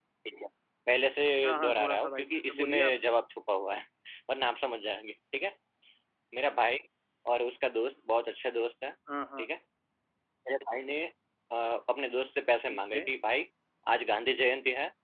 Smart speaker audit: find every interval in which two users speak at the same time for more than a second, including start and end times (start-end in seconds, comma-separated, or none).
1.6-3.0